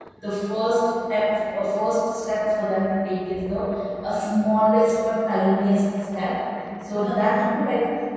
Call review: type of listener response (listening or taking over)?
listening